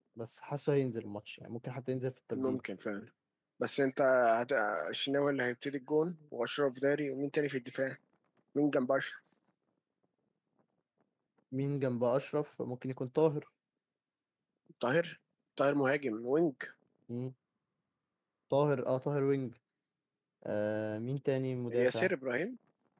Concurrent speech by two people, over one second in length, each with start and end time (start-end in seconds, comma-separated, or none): none